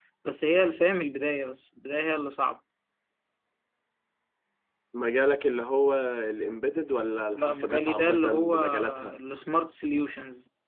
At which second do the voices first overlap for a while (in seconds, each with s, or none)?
7.4 s